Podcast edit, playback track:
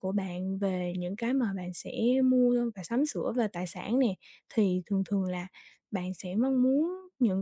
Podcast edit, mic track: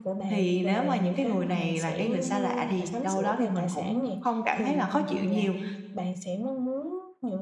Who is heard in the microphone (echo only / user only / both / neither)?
both